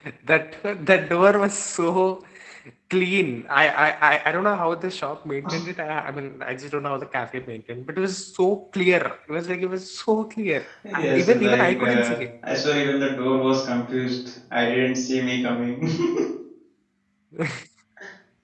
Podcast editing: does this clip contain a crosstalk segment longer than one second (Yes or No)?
Yes